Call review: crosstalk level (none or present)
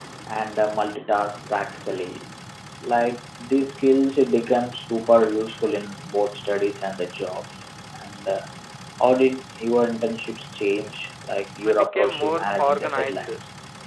present